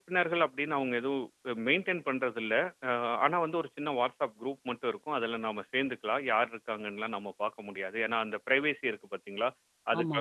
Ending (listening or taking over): listening